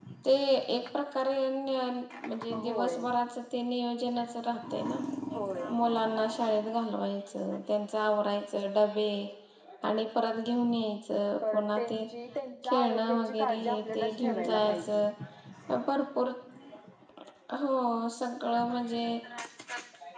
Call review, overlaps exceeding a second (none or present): present